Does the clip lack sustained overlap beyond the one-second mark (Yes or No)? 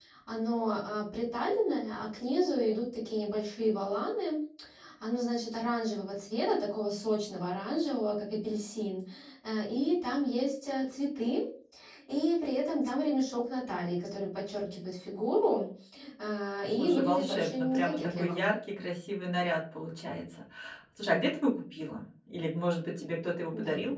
No